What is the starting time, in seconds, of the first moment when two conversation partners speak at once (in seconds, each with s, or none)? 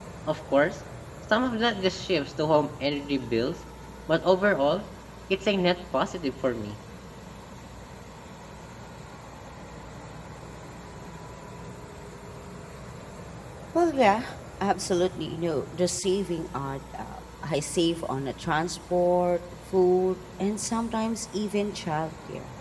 none